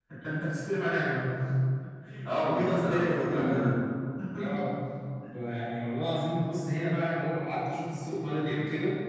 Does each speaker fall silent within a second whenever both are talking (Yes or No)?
No